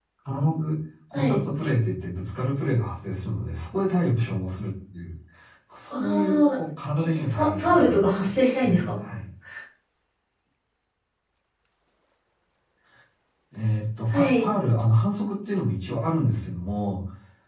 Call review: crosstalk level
present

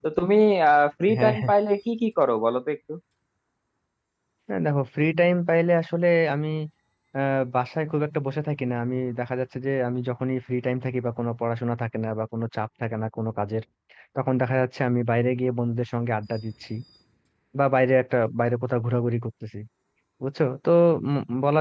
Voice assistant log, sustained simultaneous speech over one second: none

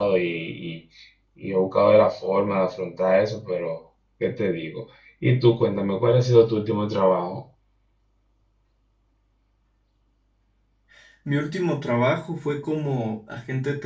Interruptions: none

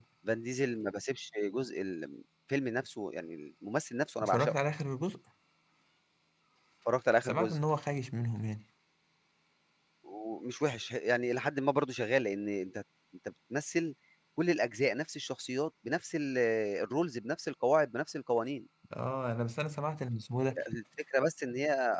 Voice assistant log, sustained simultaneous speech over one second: none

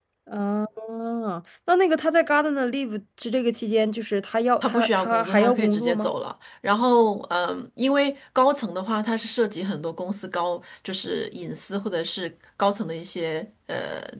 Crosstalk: present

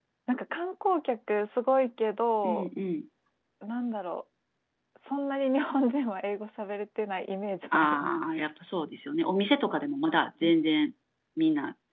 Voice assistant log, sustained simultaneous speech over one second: none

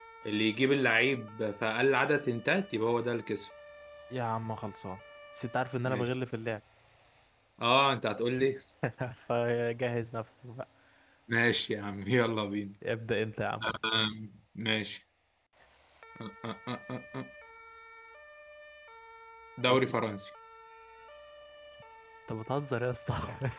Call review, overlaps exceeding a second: none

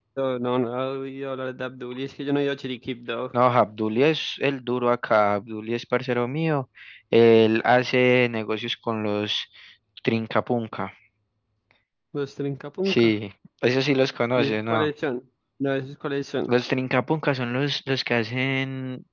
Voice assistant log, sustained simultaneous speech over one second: none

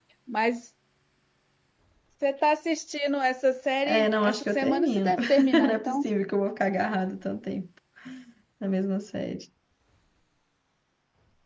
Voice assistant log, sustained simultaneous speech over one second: present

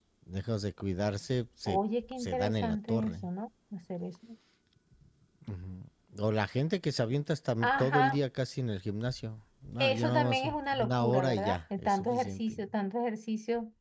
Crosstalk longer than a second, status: present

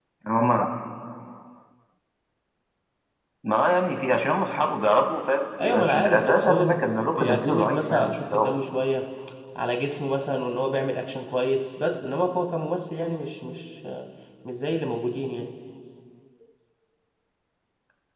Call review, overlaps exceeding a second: present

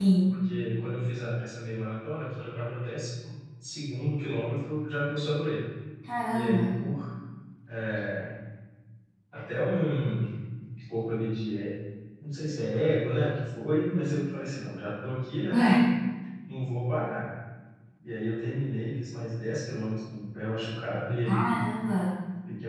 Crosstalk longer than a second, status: none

